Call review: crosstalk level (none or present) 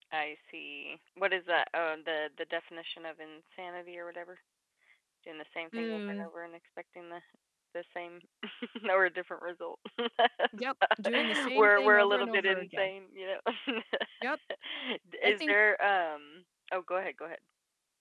present